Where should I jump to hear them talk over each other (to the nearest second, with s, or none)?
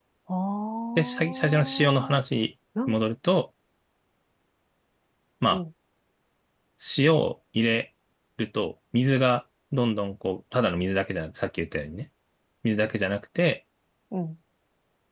1 s